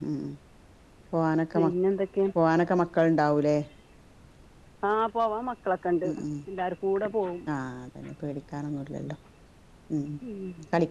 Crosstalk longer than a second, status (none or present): none